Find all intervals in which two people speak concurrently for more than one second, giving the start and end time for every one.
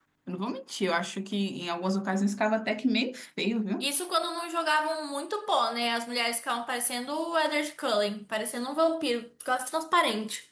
none

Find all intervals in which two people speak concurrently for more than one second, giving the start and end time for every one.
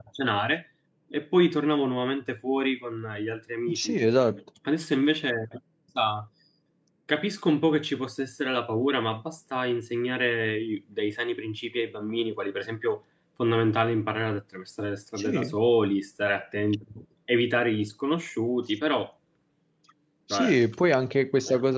none

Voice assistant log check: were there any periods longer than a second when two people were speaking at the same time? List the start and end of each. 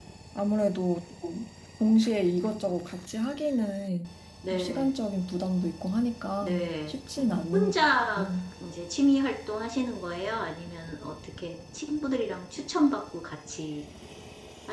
6.4-7.7

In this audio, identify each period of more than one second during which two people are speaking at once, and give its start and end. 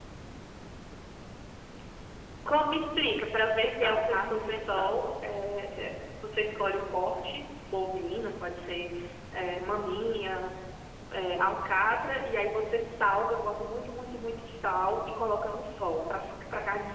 3.6-5.1

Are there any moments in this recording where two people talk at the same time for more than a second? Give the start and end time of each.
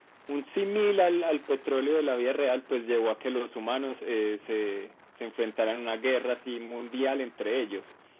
none

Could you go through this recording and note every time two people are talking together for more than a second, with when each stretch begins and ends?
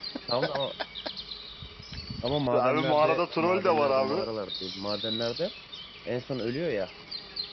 2.6-4.3

